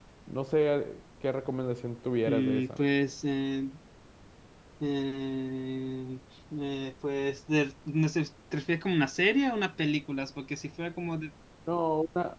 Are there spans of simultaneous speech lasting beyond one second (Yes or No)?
No